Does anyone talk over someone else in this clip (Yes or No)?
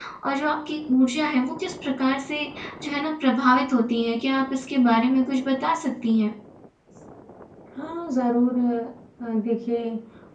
No